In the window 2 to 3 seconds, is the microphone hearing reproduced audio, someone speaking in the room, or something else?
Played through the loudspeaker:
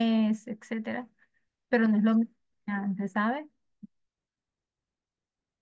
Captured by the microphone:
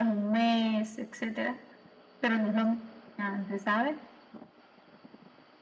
echo only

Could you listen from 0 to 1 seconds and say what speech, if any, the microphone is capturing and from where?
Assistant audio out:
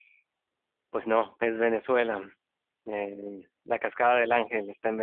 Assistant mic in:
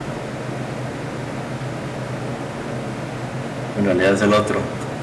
neither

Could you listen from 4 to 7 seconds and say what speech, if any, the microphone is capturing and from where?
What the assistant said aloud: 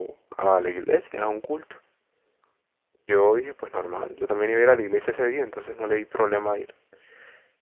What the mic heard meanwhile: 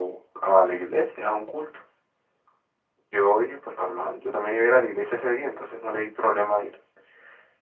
echo only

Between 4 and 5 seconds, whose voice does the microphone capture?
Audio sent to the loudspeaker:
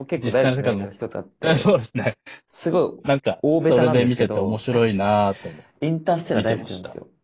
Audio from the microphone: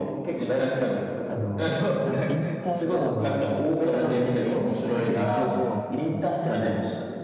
both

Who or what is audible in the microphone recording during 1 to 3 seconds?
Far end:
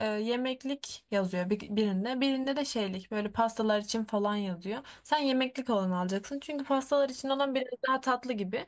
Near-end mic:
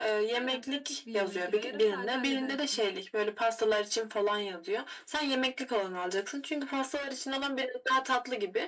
both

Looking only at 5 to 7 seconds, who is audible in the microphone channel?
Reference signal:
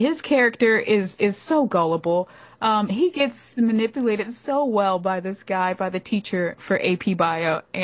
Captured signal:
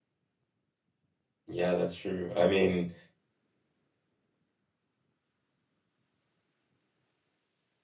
neither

